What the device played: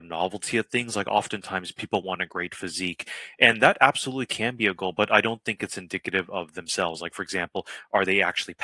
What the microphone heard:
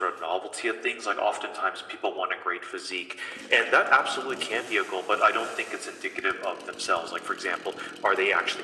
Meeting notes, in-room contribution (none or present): none